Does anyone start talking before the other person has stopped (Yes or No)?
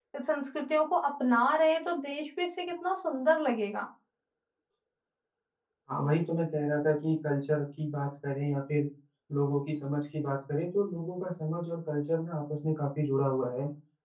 No